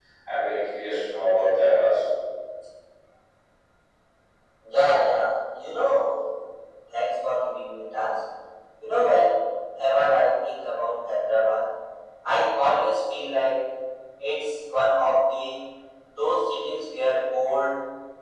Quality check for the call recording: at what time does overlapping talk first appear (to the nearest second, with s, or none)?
none